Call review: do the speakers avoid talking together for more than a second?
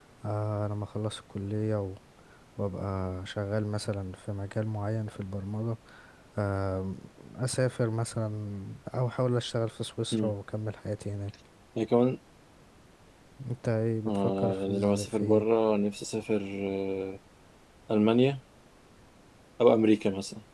No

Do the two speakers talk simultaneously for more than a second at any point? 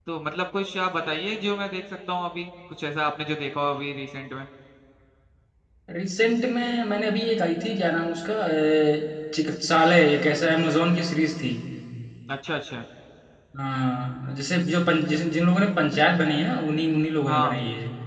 No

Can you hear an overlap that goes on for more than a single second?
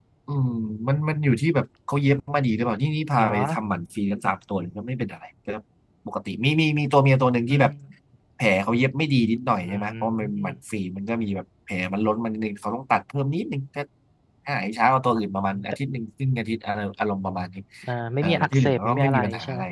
Yes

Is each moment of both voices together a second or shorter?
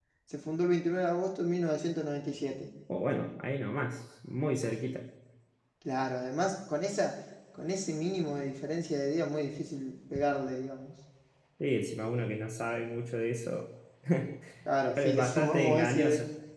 No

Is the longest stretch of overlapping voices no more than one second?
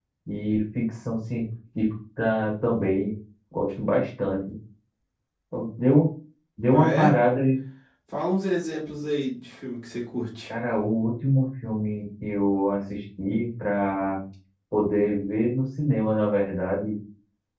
Yes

